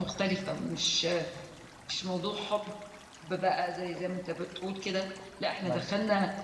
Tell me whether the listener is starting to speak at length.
No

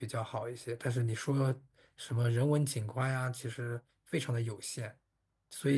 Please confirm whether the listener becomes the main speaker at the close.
Yes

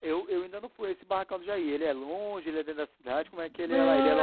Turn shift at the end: Yes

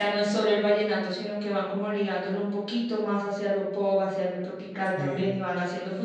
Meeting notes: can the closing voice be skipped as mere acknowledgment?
Yes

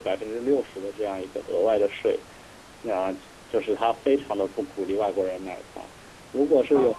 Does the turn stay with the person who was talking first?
Yes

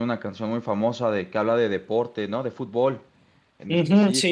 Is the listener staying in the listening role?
No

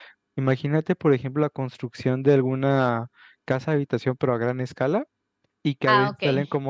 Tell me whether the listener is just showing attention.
Yes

